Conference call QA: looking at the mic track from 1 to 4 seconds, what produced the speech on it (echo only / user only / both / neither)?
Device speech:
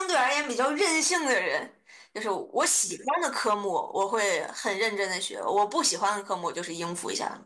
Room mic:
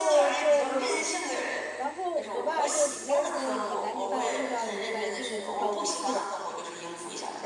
both